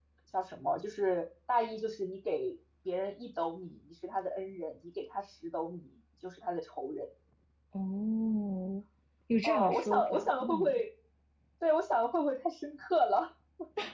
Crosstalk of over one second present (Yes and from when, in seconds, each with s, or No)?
Yes, from 9.4 s